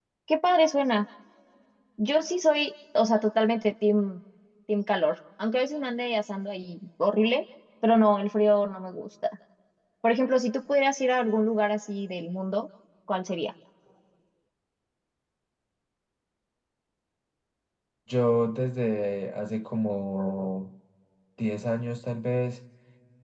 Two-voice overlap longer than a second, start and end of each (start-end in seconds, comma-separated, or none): none